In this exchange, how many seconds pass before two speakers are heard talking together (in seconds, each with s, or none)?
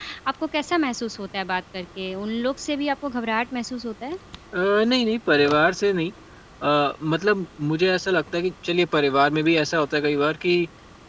none